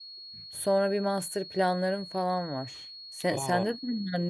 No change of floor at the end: Yes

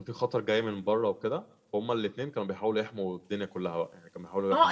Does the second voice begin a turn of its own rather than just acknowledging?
Yes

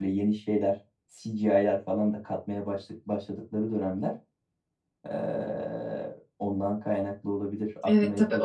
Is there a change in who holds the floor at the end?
Yes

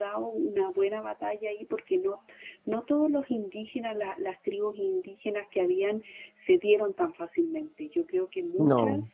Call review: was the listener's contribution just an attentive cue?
Yes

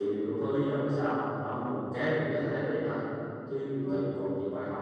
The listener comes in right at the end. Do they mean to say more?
No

